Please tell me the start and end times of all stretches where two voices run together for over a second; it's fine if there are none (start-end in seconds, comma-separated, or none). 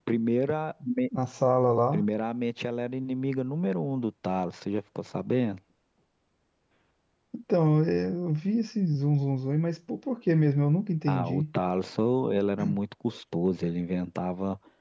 none